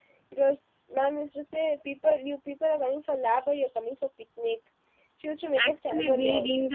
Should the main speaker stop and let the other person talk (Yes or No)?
Yes